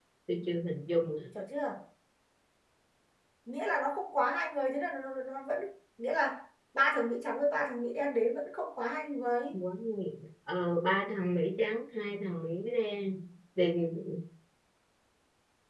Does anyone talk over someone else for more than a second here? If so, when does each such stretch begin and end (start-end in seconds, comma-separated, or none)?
none